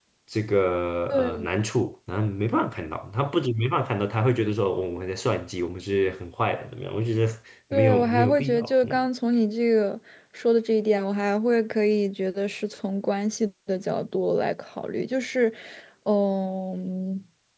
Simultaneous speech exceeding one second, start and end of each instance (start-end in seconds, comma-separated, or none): 7.7-9.0